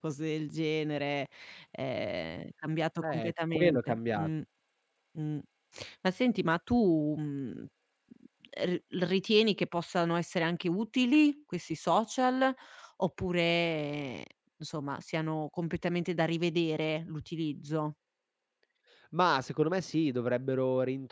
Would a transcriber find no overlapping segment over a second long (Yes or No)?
No